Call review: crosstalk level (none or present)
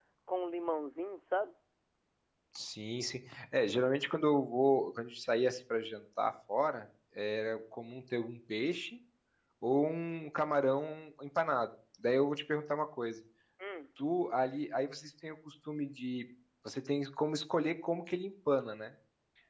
none